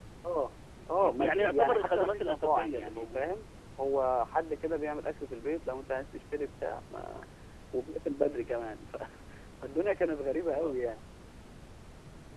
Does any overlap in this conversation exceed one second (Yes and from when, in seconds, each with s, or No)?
Yes, from 1.0 s